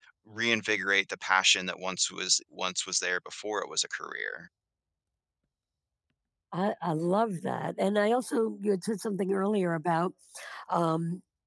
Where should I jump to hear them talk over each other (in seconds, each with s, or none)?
none